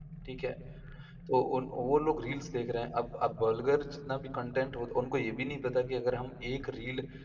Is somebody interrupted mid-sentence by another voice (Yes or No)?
No